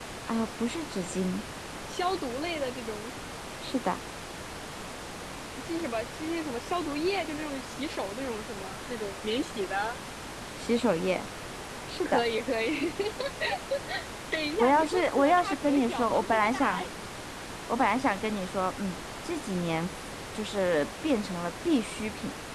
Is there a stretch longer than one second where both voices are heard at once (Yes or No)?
Yes